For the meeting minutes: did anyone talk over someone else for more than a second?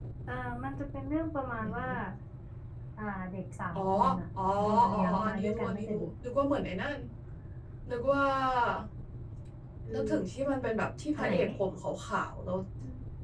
Yes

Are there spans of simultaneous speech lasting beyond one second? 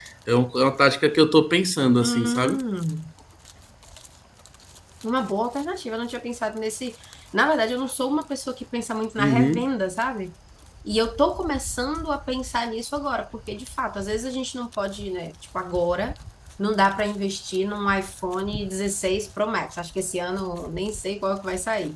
No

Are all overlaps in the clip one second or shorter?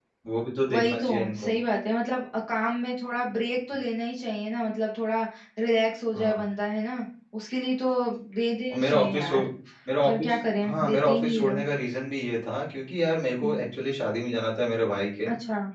No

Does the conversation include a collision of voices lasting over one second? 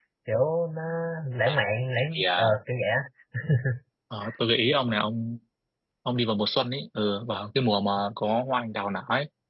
No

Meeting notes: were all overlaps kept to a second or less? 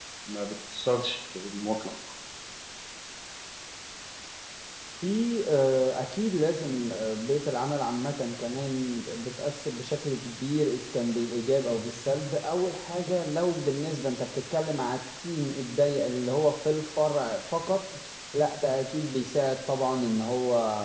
Yes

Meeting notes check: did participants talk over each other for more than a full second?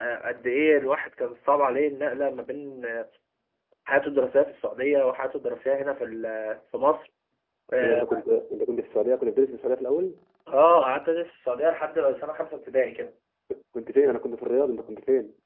No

